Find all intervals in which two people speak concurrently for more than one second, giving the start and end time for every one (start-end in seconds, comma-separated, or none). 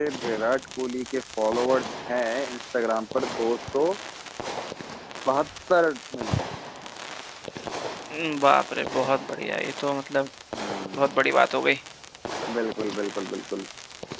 none